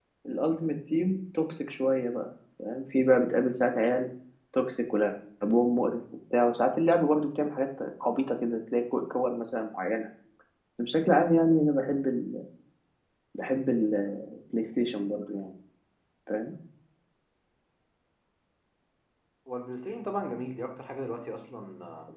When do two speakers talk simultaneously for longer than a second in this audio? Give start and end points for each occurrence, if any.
none

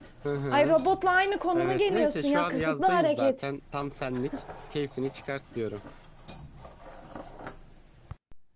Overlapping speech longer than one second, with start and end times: 1.6-3.3

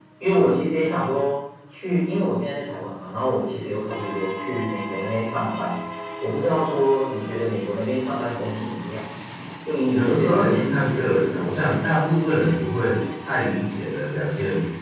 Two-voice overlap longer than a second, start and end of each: 9.9-11.7

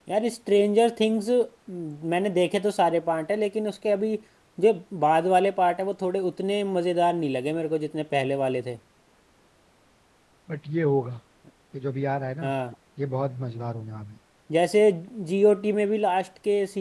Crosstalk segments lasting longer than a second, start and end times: none

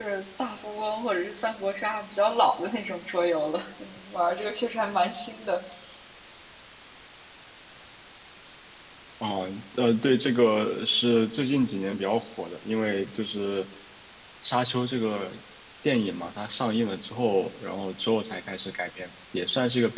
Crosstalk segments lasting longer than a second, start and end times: none

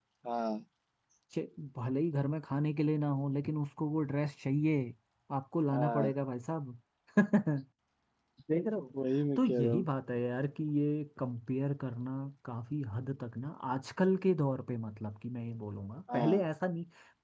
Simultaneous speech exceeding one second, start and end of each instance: none

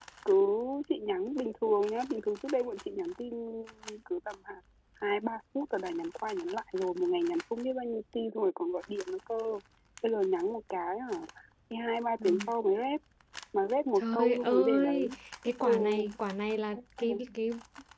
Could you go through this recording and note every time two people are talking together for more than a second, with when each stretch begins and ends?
14.0-15.2

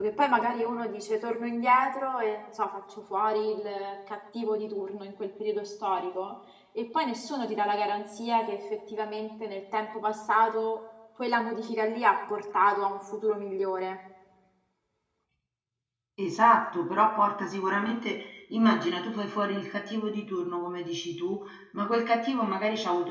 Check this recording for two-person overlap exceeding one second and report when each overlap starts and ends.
none

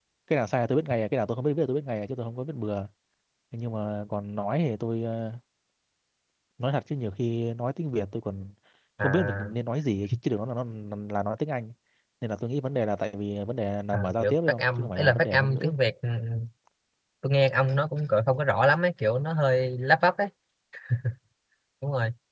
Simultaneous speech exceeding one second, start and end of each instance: 13.9-15.7

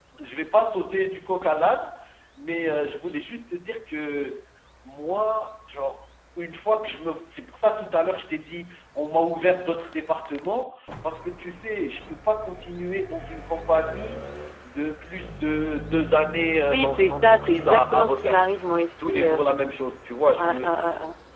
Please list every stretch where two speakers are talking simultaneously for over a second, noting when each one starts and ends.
16.7-18.4

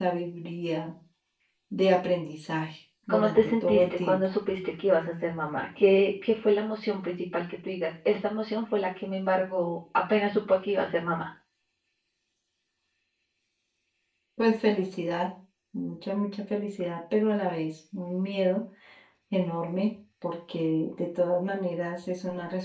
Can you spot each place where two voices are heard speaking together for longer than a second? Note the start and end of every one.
3.1-4.3

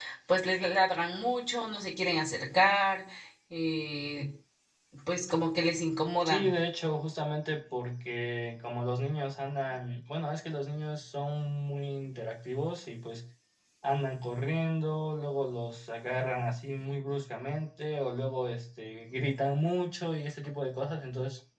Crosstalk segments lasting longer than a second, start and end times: none

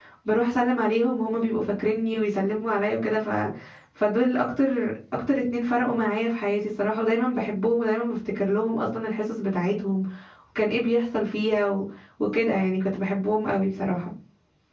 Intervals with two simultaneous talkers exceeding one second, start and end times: none

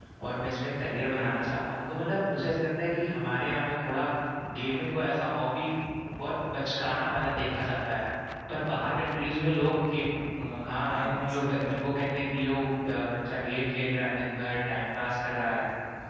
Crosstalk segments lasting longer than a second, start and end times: 10.7-11.9

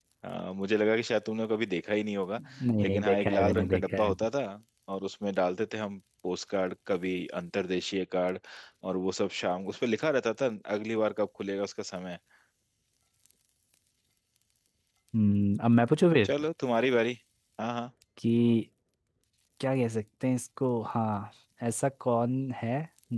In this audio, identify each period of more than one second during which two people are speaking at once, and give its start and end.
2.8-4.1

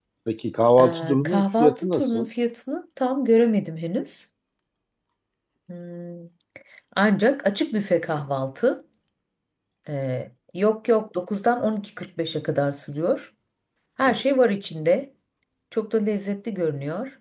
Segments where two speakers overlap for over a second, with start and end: 0.8-2.3

